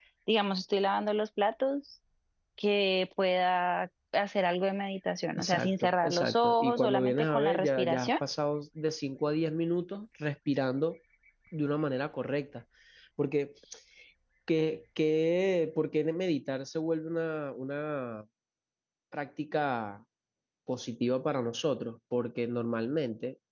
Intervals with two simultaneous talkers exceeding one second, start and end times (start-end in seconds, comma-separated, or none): 5.4-8.1